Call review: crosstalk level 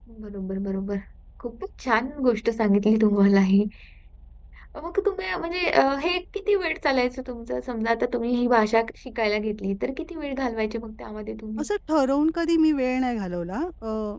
none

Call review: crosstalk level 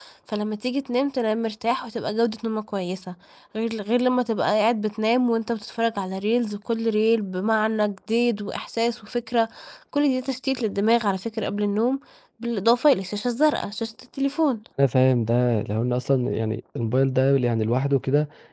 none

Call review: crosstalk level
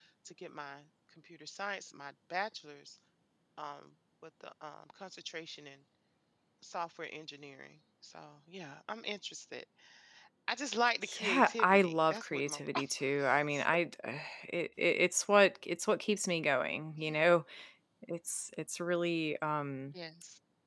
present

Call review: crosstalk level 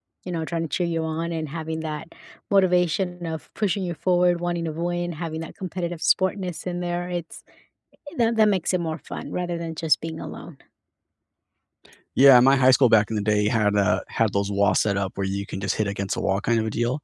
none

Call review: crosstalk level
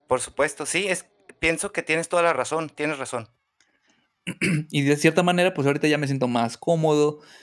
none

